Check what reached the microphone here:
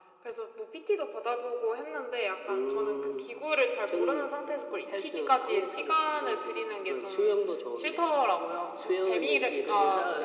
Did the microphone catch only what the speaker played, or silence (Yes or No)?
Yes